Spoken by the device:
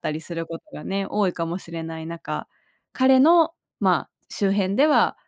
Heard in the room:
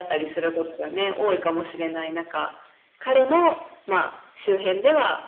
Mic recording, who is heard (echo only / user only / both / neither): echo only